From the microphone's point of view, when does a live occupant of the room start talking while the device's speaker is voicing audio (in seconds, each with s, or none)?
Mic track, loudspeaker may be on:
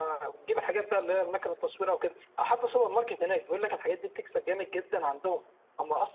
none